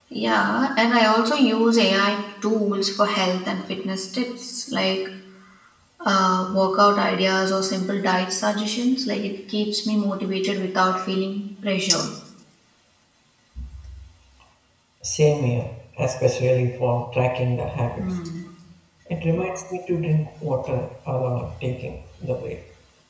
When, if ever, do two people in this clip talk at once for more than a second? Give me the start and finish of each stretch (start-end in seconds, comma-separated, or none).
none